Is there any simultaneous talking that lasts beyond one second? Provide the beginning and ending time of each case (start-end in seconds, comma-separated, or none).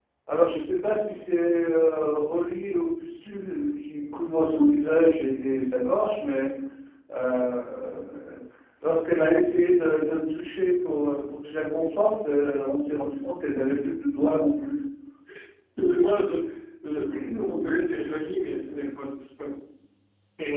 none